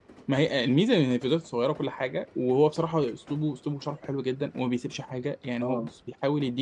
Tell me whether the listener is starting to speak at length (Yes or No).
No